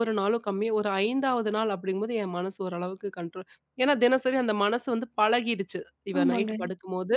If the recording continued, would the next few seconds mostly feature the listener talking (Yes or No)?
No